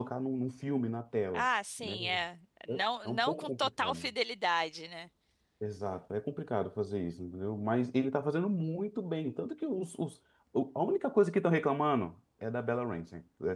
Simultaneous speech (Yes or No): Yes